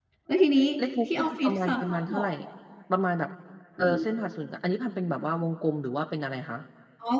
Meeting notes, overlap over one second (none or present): present